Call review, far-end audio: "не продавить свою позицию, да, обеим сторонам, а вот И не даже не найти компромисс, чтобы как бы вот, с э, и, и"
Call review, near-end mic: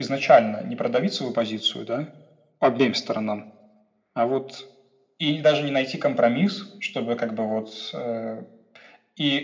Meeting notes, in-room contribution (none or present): none